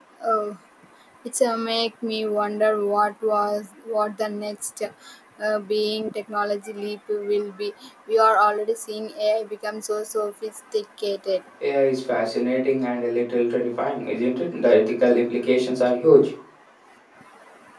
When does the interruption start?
none

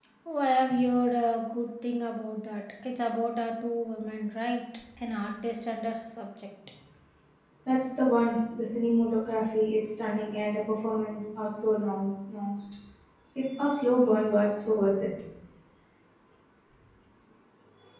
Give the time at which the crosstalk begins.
none

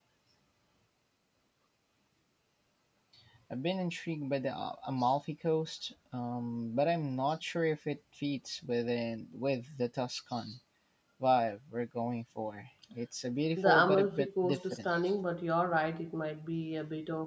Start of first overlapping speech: 13.6 s

